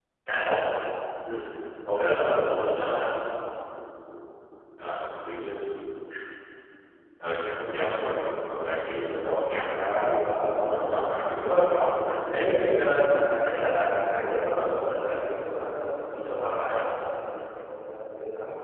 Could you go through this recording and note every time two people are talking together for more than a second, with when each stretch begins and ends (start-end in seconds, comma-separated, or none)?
9.7-11.6